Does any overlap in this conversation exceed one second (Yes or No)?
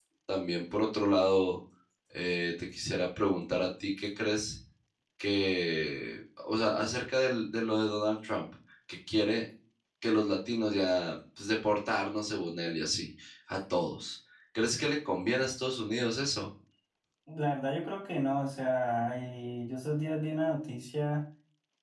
No